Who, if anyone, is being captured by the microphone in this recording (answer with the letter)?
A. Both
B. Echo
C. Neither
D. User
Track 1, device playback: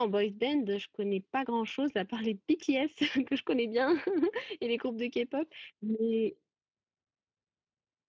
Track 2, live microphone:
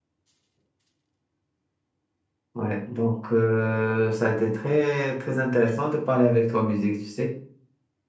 D